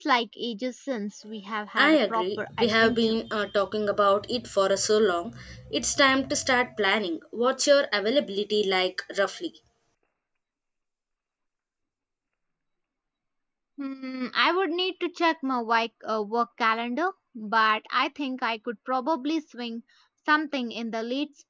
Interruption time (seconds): 2 s

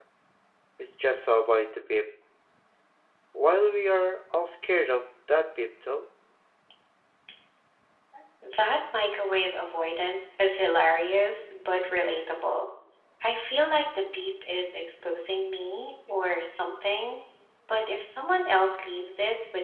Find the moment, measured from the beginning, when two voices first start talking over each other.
none

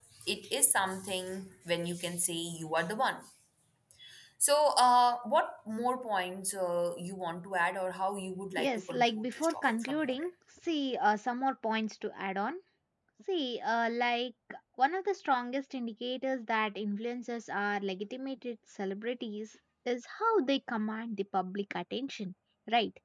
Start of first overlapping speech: 9 s

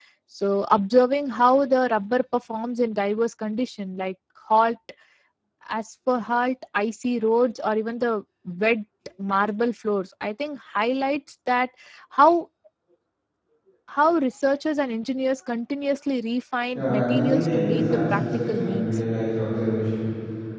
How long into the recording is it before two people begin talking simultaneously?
17 s

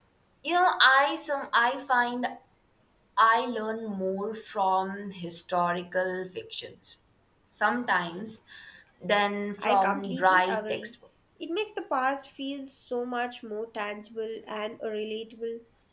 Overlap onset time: 10 s

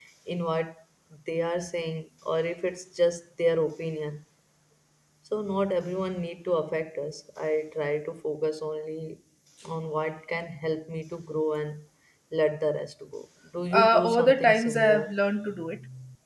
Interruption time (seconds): 14 s

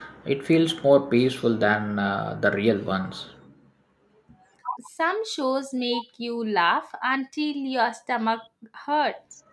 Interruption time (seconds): none

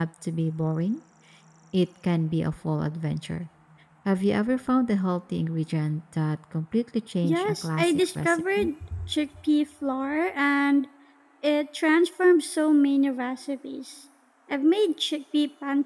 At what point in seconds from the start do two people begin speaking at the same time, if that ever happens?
7 s

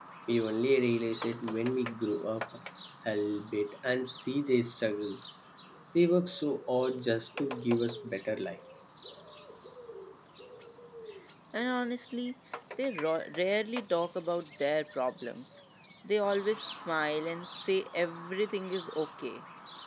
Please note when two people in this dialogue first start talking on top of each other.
none

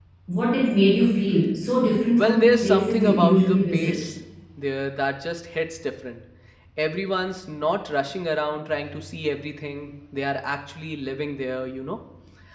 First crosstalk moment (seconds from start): 2 s

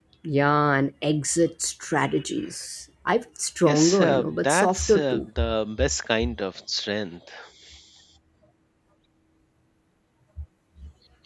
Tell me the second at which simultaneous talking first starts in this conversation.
4 s

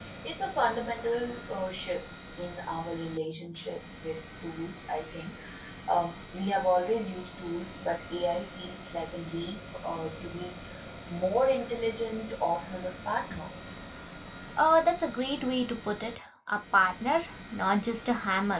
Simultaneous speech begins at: none

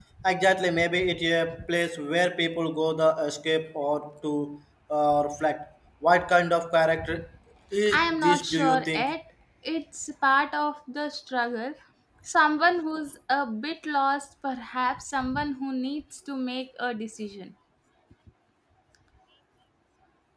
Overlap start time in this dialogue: 8 s

